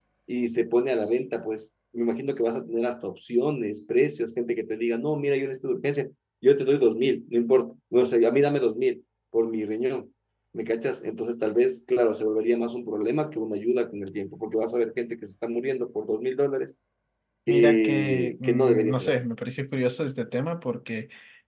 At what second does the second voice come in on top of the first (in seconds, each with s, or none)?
17.5 s